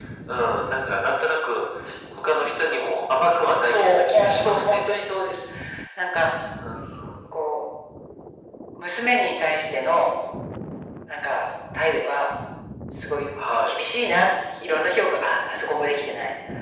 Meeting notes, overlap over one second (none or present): present